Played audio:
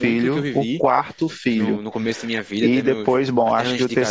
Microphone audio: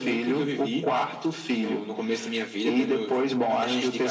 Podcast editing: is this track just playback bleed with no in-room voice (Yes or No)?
Yes